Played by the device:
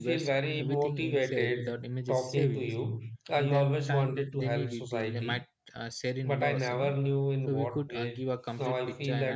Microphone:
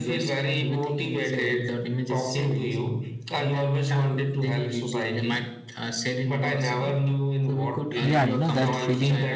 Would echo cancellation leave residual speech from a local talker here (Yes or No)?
Yes